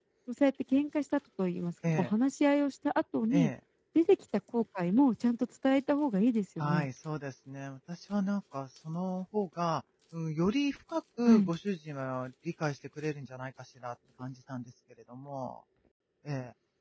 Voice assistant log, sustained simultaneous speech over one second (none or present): none